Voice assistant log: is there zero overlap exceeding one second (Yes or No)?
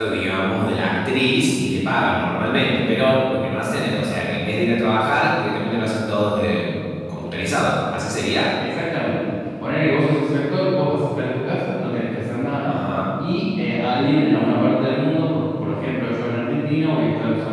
Yes